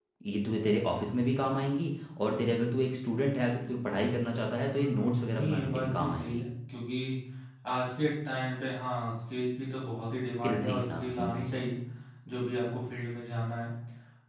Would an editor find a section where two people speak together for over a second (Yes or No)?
Yes